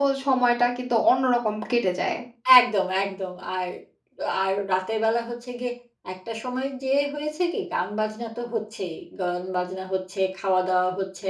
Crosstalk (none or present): none